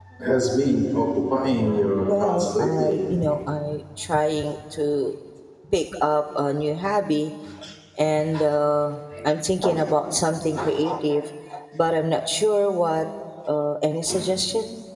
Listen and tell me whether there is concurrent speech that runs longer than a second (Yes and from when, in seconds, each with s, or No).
Yes, from 1.5 s